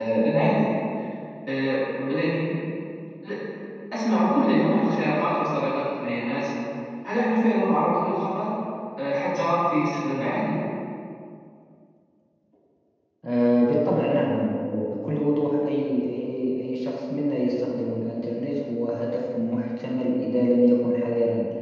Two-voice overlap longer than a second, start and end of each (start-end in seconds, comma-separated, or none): none